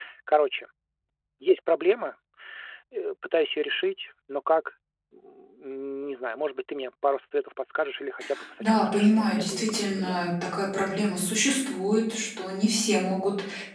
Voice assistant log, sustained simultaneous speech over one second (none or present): present